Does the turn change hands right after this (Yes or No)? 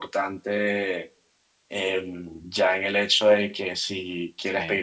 No